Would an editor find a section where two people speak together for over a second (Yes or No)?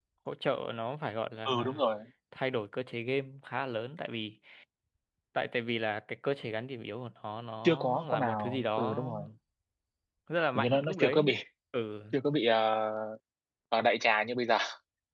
Yes